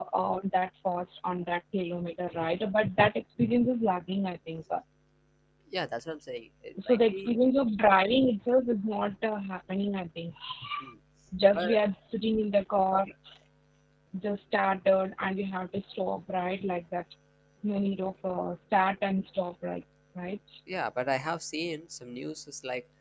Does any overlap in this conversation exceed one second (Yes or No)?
No